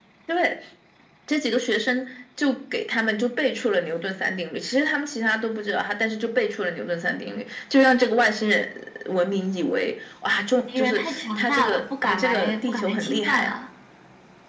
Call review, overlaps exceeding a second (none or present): present